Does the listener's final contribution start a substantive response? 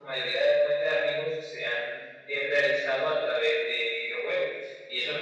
No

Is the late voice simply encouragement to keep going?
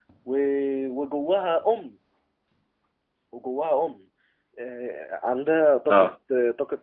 Yes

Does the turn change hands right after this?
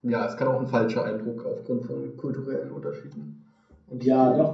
Yes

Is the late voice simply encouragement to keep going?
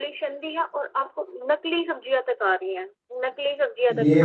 No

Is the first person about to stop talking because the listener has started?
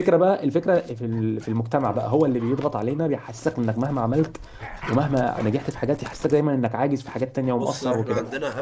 Yes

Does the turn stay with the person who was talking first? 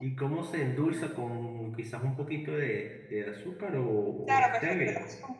No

